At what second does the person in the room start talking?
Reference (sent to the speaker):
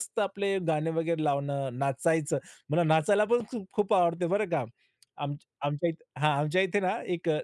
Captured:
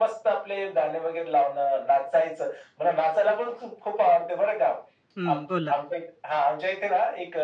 5.2 s

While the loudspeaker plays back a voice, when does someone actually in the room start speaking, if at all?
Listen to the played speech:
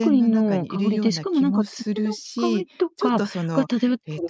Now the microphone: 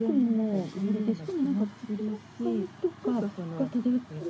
none

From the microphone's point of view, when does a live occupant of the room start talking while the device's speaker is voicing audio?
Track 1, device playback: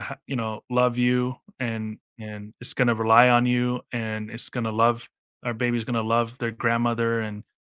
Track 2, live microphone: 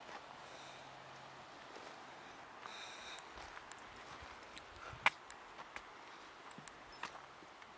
none

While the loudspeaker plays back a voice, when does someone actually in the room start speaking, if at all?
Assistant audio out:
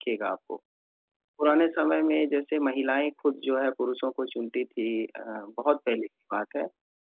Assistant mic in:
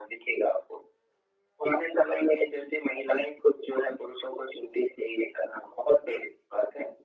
none

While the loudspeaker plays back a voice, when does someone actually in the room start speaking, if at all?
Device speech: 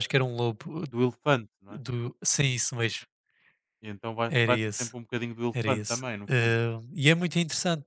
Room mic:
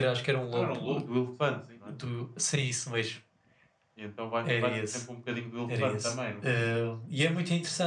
0.5 s

